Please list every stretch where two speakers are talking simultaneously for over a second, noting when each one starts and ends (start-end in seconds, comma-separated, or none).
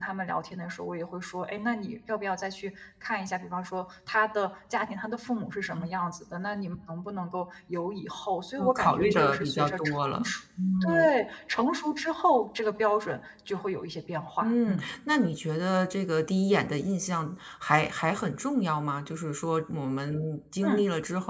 8.6-10.3